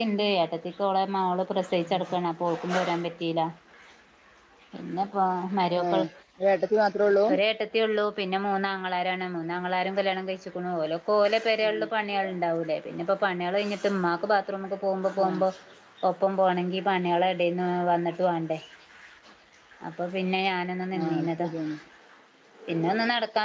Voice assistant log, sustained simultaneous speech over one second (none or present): none